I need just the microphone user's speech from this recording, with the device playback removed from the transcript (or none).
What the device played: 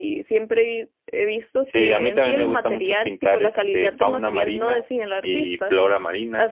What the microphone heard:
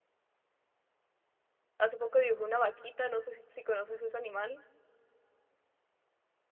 Hace poco dibujé una vaquita, no sé si, si conoces ese animal.